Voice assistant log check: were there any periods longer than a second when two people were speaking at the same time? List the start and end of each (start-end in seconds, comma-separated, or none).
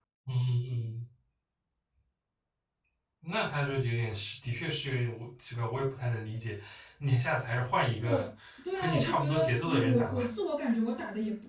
8.8-10.3